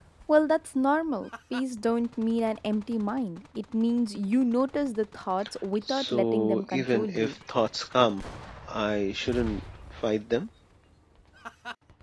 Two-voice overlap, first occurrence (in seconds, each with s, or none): 5.9 s